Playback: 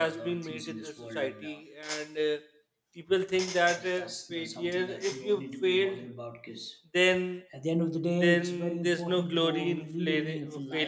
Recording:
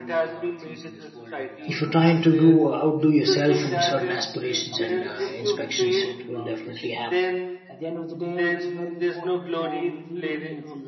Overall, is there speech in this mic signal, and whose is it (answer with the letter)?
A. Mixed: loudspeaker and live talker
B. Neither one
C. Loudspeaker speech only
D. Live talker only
A